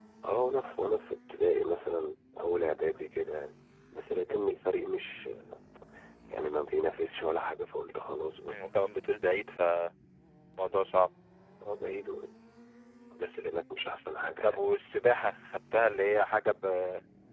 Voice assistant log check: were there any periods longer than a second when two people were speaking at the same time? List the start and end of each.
none

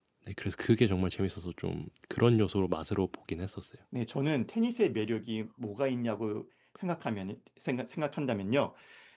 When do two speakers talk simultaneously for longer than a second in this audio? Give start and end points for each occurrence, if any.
none

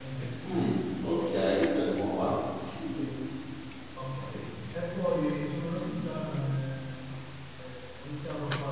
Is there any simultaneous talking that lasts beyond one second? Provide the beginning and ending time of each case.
none

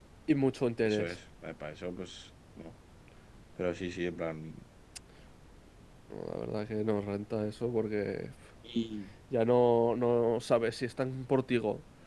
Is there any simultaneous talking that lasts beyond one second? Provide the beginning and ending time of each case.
none

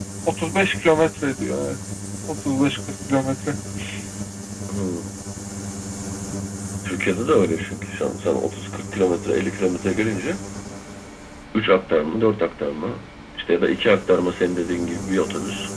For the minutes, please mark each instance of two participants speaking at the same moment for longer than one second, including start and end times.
none

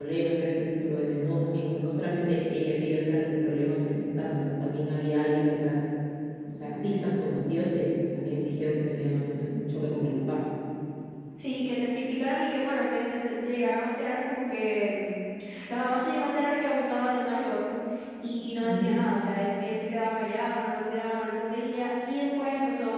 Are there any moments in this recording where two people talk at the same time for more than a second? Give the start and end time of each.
none

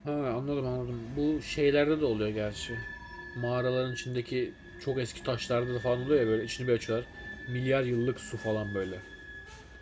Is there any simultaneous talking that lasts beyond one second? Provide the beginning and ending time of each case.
none

